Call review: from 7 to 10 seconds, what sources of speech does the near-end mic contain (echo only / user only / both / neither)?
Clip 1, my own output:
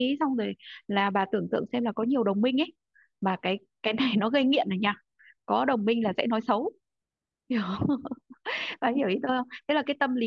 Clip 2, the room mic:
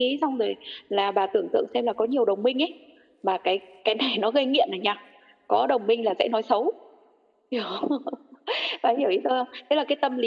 echo only